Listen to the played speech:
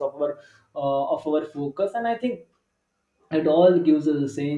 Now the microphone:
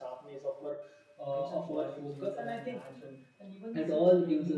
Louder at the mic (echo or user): echo